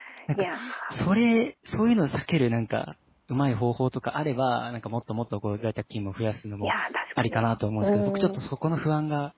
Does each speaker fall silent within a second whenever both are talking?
Yes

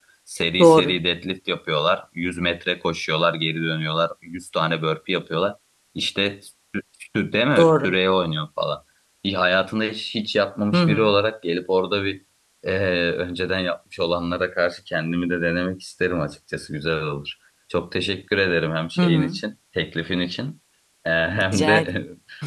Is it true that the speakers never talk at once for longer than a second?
Yes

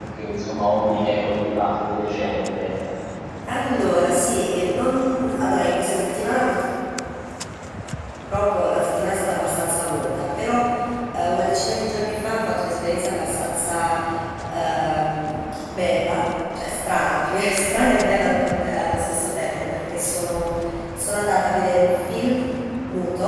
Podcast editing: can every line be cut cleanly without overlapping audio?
Yes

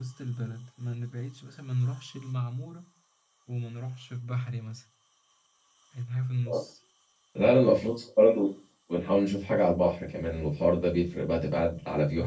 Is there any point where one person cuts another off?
No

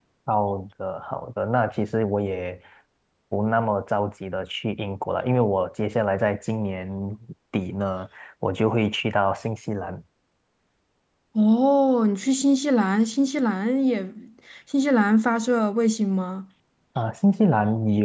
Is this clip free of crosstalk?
Yes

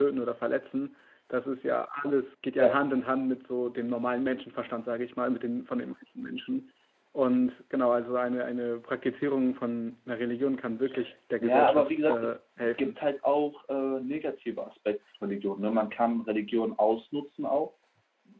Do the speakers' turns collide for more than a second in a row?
Yes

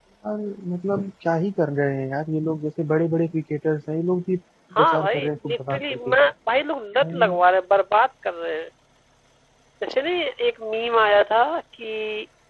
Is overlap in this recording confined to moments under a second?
No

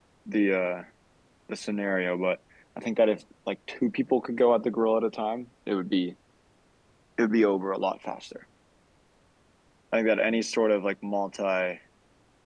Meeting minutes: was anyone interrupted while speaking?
No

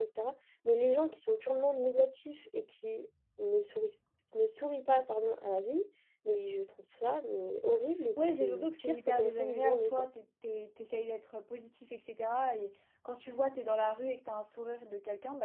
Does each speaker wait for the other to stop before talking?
No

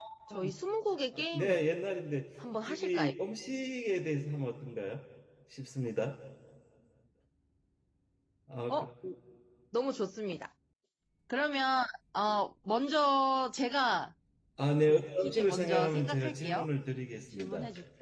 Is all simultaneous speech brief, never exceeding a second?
No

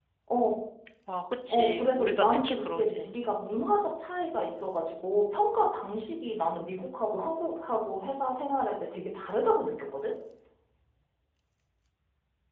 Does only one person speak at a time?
No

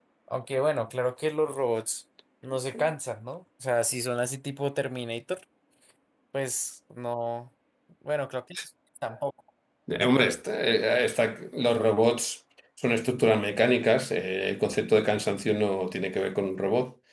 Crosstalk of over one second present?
No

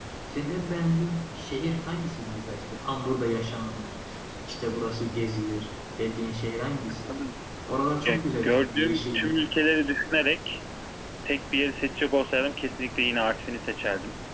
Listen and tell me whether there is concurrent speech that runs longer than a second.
Yes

